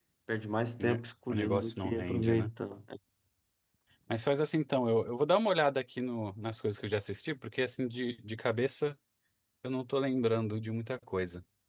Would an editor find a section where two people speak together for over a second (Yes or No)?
Yes